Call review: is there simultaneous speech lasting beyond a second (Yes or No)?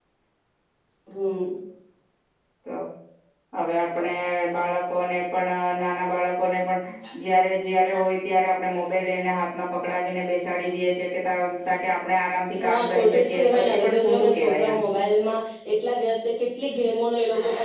Yes